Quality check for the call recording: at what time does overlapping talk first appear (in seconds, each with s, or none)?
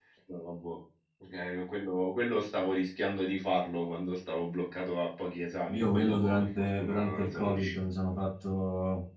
5.7 s